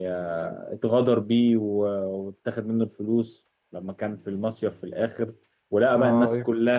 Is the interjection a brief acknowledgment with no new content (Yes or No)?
Yes